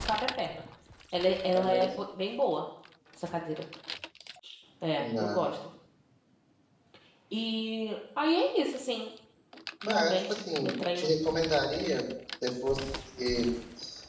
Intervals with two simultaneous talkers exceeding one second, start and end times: 9.9-11.1

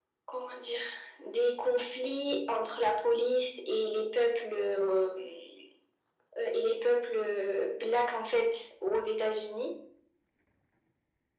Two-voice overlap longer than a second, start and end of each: none

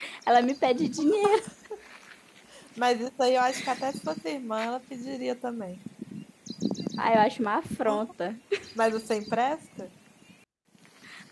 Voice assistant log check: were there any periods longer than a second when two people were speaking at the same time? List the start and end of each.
none

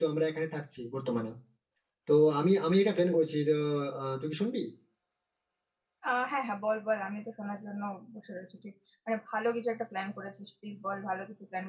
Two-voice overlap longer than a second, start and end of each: none

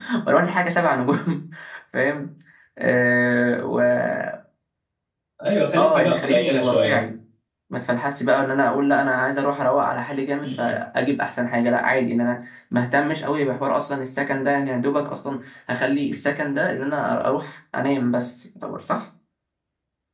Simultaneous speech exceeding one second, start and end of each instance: 5.8-7.1

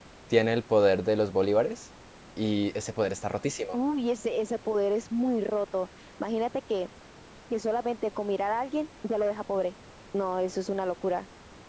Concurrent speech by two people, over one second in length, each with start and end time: none

